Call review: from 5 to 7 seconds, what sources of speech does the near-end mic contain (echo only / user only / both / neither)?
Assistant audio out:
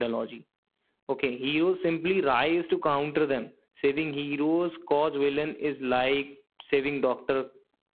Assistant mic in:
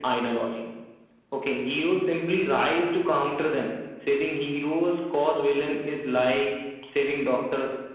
echo only